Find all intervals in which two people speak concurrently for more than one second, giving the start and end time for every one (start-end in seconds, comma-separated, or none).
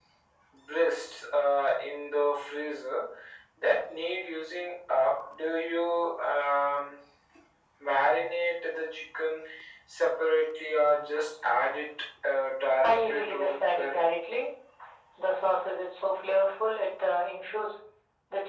12.8-14.1